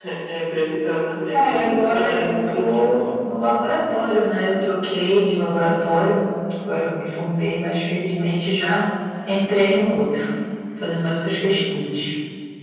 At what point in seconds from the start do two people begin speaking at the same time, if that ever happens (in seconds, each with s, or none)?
1.3 s